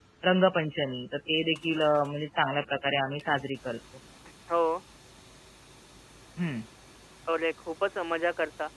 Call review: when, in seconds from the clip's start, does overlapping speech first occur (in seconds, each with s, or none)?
none